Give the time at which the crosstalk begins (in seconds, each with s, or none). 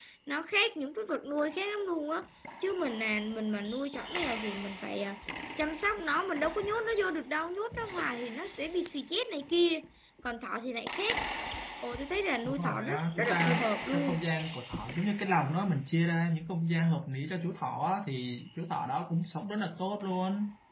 12.4 s